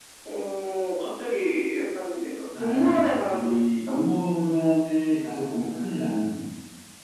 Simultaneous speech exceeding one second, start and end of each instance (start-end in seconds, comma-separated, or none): 2.6-3.8